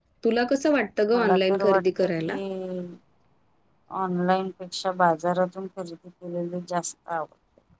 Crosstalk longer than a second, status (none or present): present